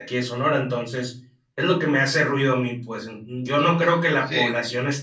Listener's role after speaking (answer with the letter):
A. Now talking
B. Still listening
B